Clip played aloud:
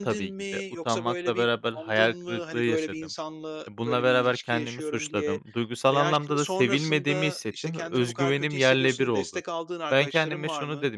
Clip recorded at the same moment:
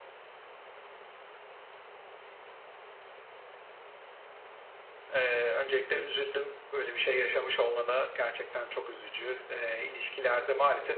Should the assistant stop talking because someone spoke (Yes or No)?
Yes